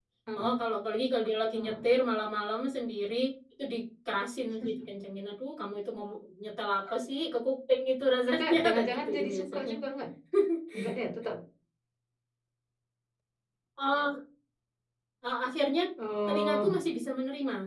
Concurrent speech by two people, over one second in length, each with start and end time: 8.2-9.7

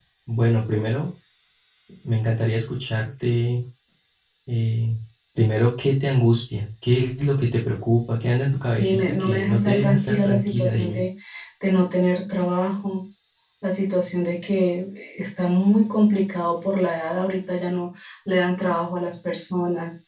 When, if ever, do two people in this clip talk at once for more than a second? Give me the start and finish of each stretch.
8.8-11.0

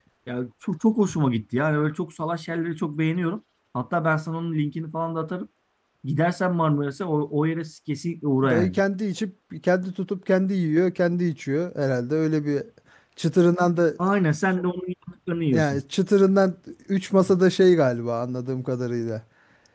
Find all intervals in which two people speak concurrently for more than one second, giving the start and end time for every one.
none

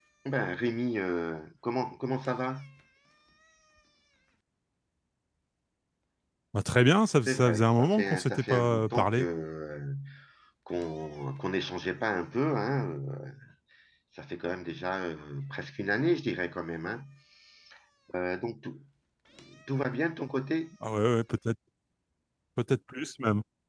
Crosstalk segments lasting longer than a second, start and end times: 7.3-9.3

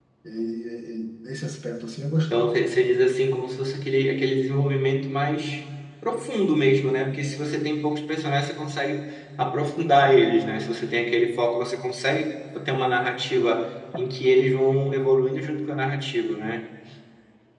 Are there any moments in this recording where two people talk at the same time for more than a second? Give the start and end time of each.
none

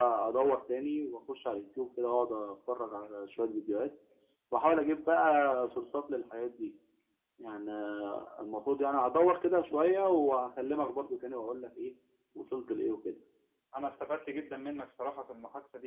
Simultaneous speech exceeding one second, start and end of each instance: none

